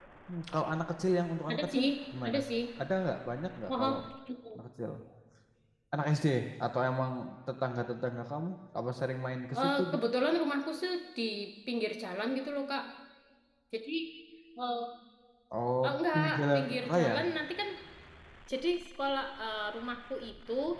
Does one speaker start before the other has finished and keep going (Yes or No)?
Yes